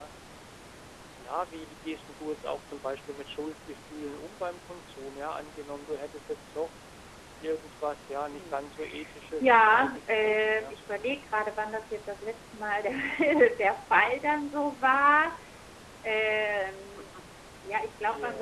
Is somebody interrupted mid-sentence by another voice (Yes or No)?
Yes